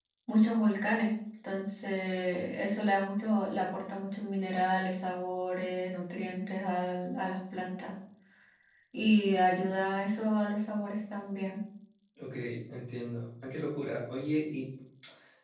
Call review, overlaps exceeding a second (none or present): none